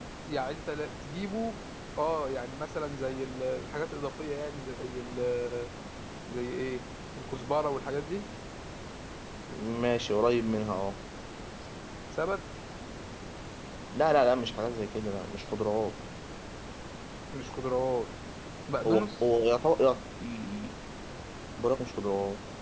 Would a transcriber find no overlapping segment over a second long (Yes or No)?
Yes